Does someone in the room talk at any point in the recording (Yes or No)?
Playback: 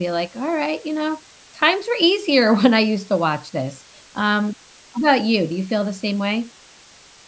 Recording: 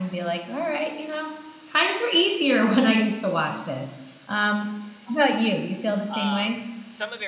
Yes